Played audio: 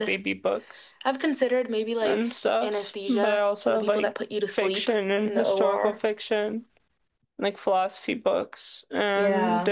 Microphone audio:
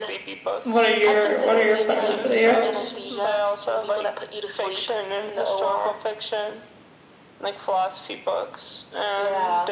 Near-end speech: present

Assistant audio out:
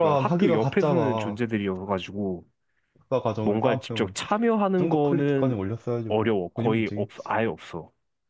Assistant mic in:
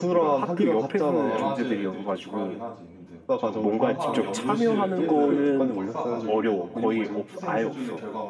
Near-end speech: present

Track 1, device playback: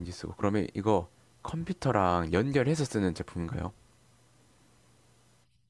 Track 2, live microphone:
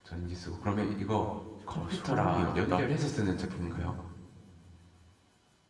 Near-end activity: present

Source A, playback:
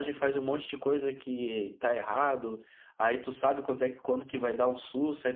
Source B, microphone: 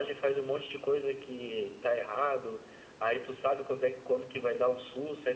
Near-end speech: none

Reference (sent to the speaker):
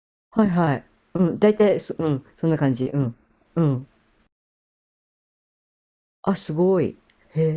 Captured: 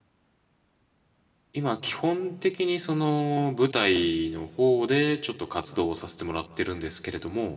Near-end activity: present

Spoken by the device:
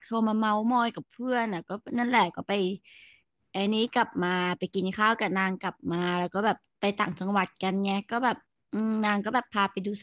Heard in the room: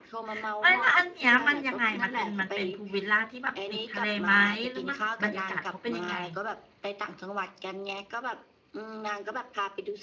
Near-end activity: present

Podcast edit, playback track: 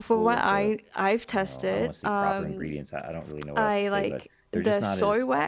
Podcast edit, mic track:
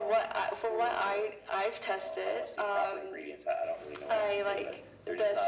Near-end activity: none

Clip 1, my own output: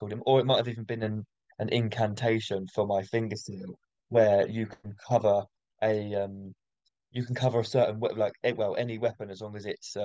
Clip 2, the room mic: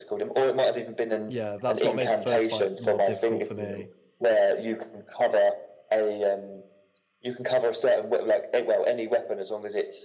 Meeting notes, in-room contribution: present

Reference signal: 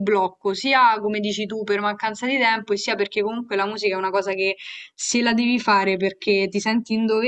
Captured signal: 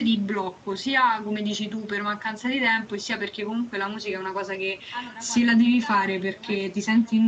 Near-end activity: present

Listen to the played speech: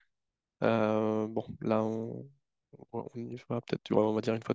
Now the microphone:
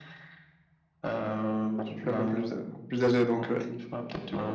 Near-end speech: present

